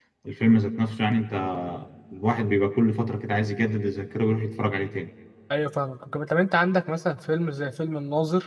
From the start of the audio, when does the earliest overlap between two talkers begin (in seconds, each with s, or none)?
none